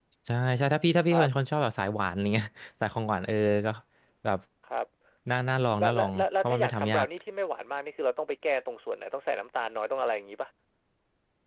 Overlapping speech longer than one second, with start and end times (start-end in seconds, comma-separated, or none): 5.8-7.1